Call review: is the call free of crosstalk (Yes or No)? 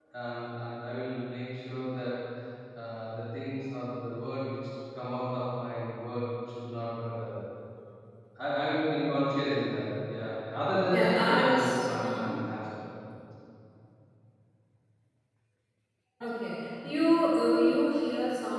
No